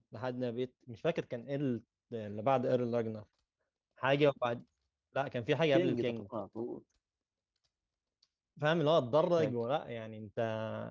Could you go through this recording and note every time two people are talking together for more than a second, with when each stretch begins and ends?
none

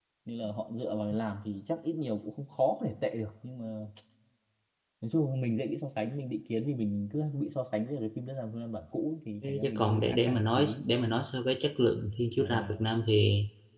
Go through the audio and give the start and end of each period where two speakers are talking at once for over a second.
9.5-10.8

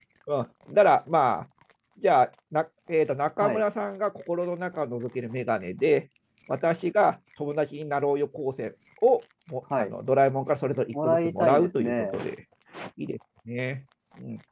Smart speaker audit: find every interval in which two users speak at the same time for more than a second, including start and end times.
10.9-12.2

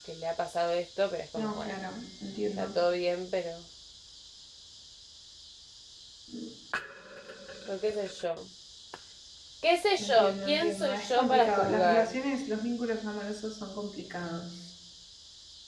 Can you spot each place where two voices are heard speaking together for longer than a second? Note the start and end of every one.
10.0-12.1

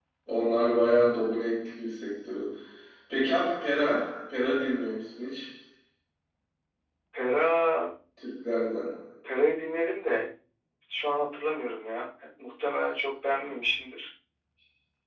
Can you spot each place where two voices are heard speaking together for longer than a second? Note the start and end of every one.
none

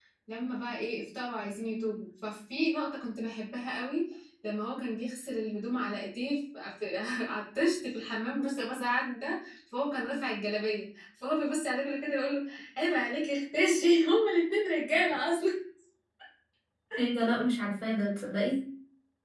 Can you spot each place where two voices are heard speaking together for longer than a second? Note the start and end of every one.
none

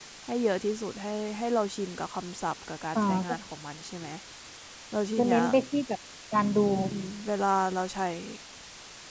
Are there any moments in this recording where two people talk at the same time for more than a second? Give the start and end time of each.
none

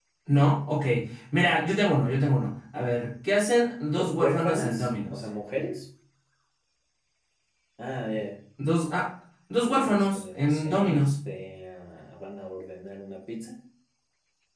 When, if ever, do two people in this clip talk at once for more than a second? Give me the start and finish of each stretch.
4.0-5.2, 9.7-11.1

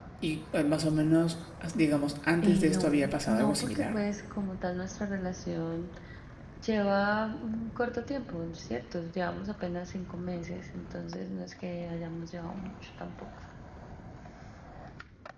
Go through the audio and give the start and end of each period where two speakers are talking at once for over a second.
2.4-4.0

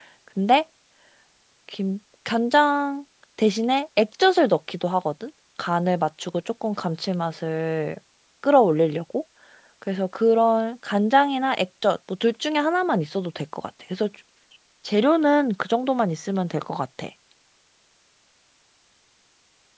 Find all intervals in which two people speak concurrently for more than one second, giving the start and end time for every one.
none

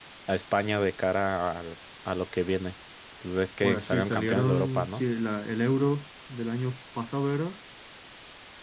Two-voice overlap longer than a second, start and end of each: 3.6-5.0

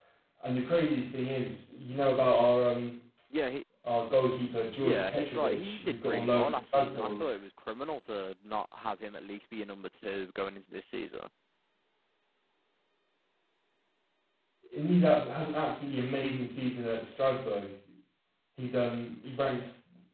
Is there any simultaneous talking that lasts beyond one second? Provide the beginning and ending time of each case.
4.8-7.2

